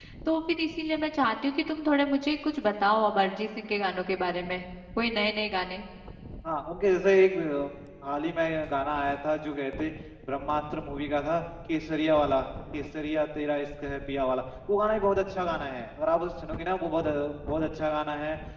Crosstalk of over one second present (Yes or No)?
No